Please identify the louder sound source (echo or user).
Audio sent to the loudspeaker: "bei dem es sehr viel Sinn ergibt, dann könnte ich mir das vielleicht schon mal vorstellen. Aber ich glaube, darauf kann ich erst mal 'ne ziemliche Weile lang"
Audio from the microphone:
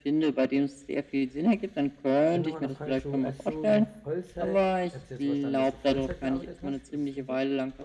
echo